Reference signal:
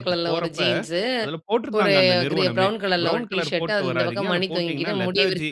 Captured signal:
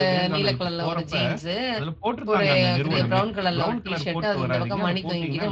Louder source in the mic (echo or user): echo